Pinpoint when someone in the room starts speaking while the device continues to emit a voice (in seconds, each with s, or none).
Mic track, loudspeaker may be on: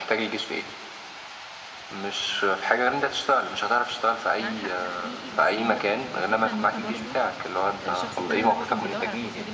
4.4 s